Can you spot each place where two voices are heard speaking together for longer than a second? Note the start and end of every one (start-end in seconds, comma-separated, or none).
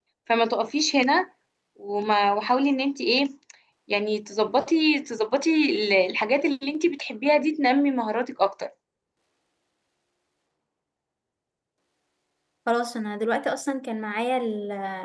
none